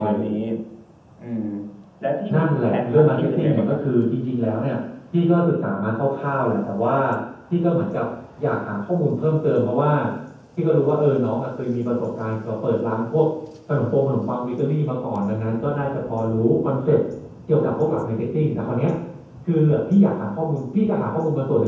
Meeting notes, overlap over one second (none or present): present